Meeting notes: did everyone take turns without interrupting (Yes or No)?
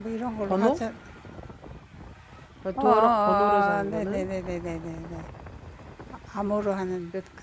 No